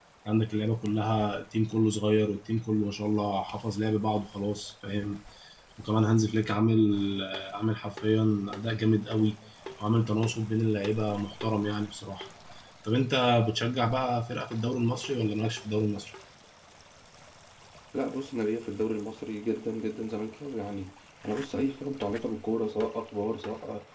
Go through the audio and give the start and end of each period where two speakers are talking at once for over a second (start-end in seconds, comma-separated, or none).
none